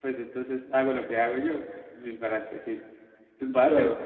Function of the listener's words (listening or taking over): listening